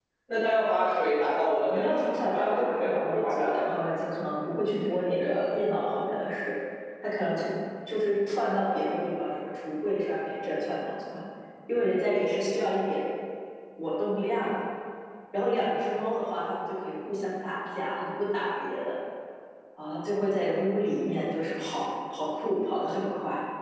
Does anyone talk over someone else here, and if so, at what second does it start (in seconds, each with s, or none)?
1.7 s